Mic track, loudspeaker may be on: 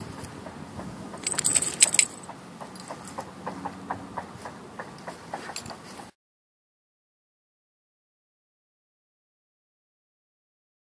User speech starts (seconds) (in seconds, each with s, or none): none